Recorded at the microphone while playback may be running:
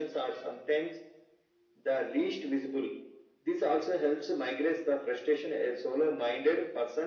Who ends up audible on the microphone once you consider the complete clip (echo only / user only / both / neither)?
echo only